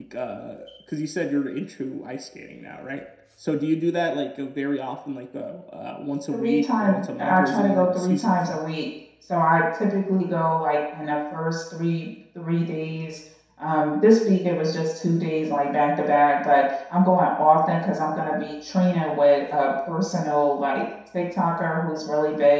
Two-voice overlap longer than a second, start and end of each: 6.3-8.6

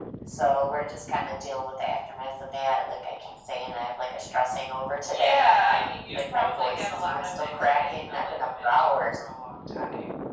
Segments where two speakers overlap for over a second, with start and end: 5.1-9.0

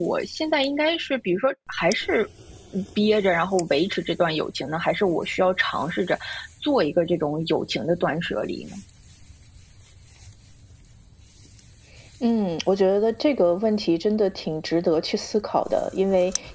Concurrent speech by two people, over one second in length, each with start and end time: none

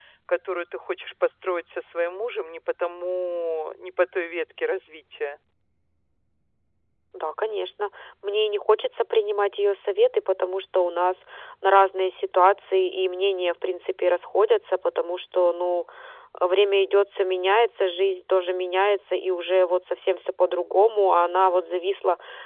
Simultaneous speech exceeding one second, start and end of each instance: none

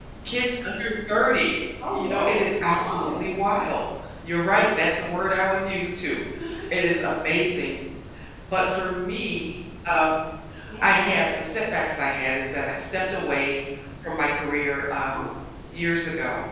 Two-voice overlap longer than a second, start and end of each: 1.9-3.3

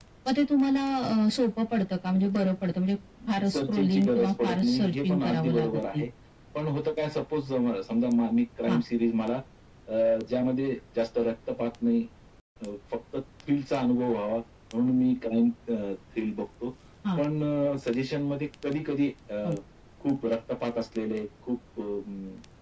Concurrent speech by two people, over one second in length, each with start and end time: 3.5-6.0

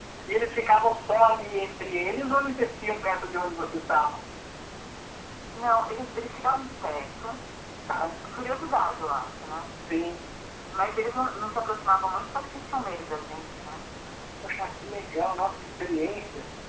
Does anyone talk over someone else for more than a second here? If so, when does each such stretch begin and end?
none

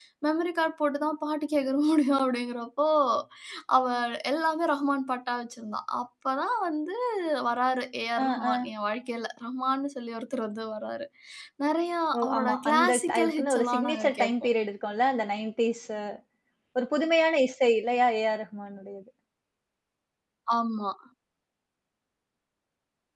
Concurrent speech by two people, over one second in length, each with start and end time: 12.2-14.3

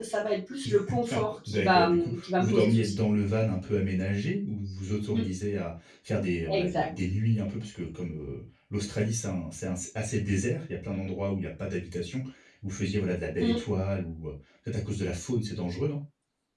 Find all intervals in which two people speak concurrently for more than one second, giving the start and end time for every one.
1.5-2.9

